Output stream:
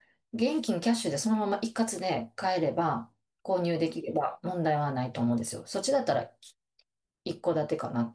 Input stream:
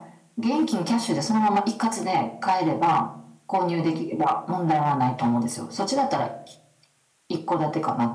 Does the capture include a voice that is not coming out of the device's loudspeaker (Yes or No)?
No